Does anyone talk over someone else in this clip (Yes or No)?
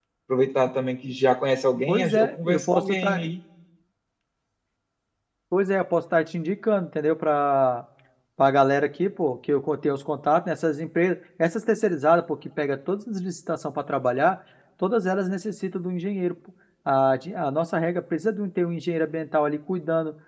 Yes